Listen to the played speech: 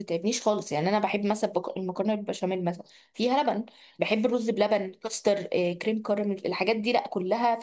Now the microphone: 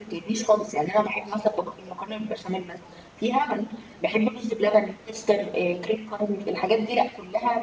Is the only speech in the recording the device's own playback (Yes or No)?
Yes